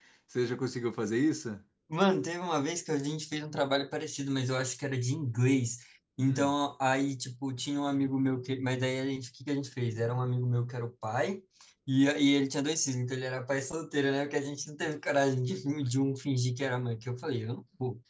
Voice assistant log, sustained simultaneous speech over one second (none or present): none